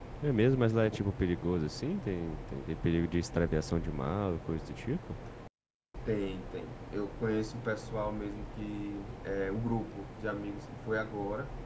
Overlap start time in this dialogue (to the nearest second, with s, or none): none